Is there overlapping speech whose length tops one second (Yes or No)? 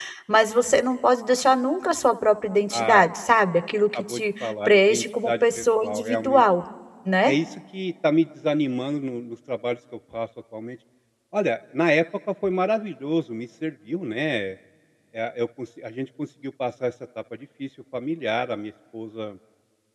Yes